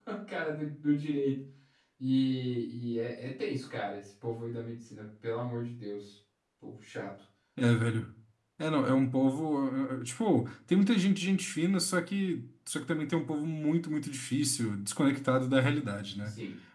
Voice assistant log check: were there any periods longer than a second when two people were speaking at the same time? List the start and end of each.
none

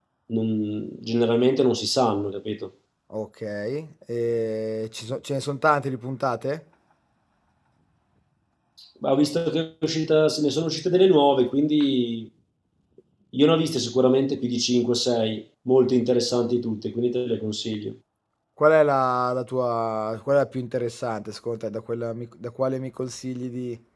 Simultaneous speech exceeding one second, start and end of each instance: none

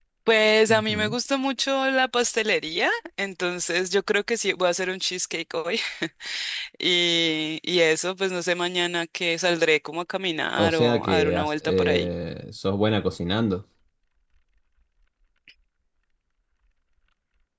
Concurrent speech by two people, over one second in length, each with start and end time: 10.6-12.1

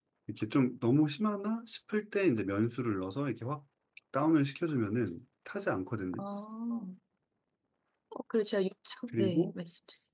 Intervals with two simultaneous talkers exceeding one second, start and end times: none

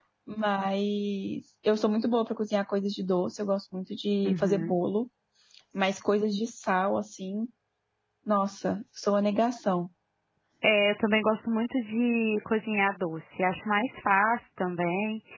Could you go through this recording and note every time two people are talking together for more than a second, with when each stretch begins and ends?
none

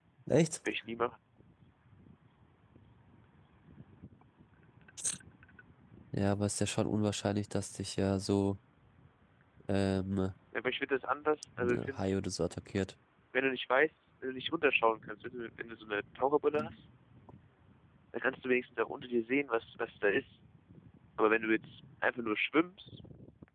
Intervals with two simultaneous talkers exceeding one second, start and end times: none

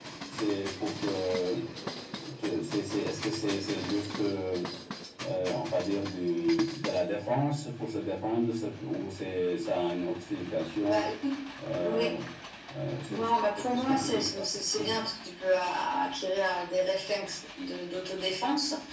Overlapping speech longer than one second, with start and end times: 13.1-14.4

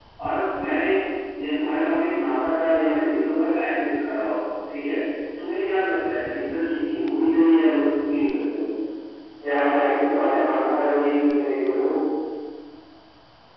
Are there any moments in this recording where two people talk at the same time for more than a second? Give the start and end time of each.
none

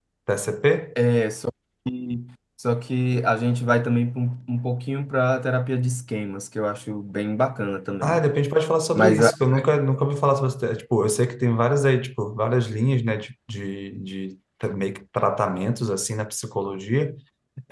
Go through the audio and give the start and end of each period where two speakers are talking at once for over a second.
none

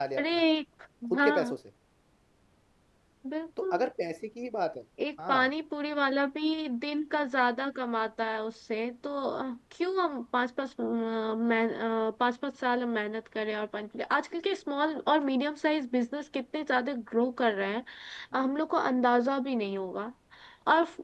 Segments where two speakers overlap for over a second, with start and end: none

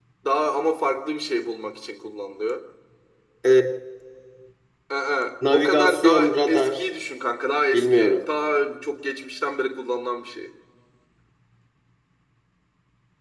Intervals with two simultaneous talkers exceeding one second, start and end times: 5.5-6.8

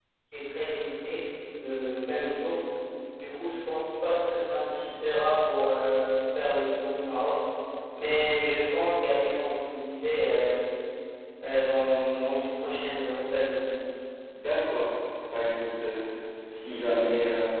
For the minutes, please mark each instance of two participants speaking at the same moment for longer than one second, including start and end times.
none

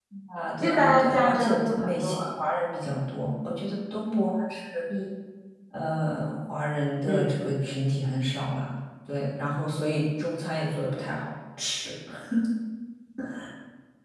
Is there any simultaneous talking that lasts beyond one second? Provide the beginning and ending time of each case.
0.6-2.1

